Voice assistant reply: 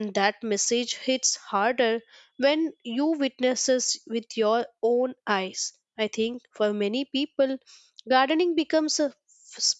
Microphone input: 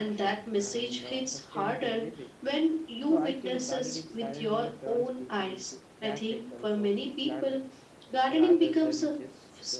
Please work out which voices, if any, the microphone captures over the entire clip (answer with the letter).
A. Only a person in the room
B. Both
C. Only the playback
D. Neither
B